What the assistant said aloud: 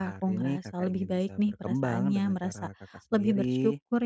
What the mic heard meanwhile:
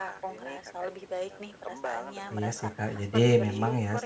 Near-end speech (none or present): present